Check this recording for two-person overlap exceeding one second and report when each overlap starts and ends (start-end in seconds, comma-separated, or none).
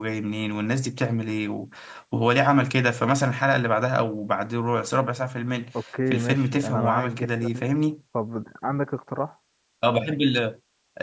6.1-7.6